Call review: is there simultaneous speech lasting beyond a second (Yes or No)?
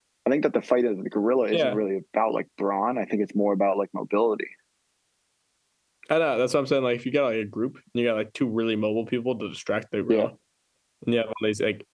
No